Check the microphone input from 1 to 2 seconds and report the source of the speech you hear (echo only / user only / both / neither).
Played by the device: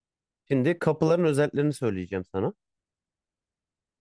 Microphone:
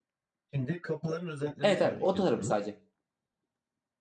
both